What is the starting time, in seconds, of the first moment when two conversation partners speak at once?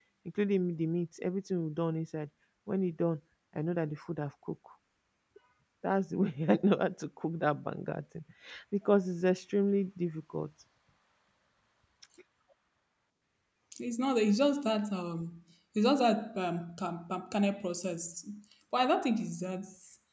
none

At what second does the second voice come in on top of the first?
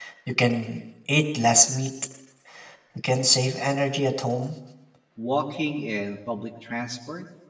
none

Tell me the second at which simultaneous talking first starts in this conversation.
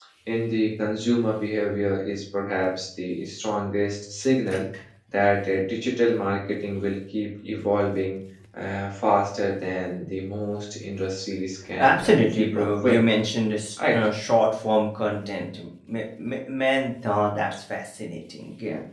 11.8 s

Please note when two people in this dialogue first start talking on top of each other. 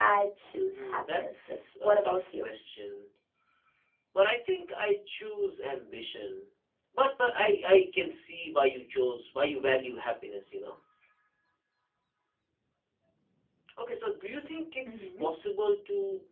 0.7 s

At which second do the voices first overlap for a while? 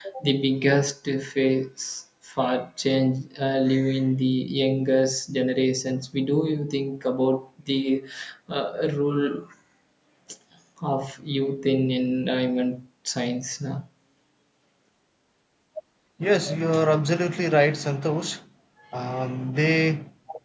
none

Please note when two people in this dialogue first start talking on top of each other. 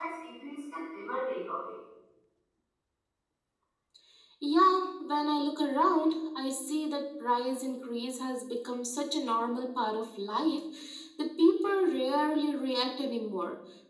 none

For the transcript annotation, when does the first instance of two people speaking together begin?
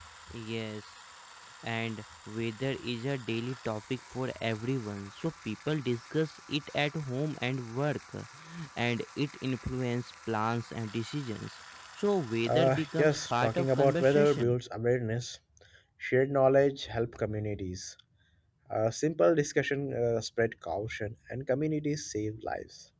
12.4 s

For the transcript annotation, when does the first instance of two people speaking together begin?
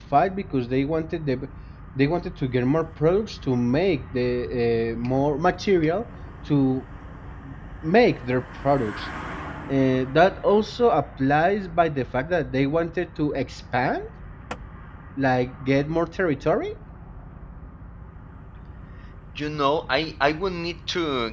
none

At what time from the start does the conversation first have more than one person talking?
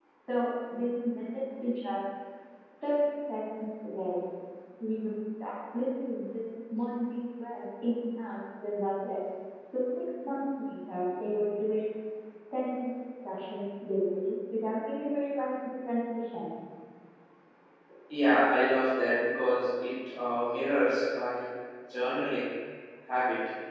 none

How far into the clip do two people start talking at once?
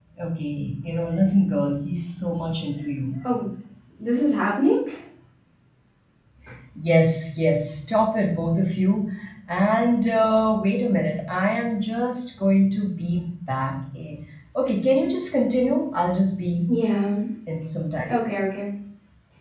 none

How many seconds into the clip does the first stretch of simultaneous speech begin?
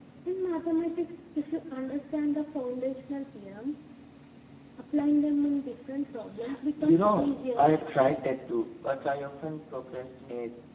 6.8 s

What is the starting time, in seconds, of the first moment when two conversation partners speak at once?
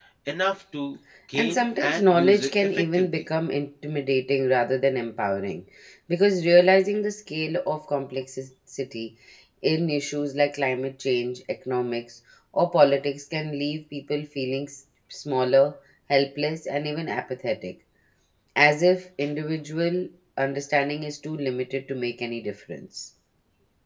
1.3 s

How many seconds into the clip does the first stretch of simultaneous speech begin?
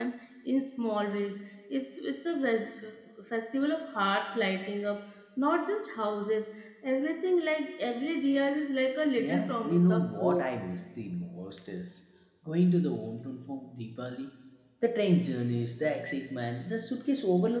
9.2 s

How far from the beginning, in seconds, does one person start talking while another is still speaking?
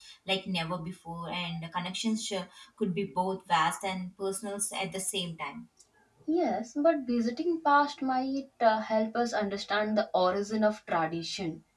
none

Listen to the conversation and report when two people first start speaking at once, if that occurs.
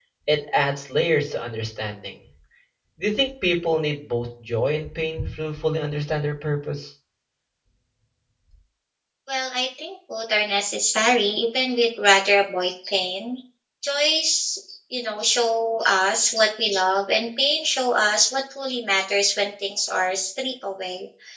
none

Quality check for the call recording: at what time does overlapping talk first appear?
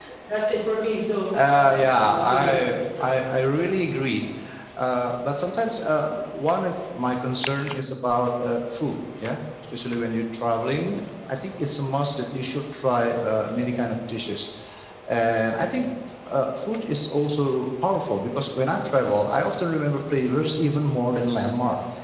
1.3 s

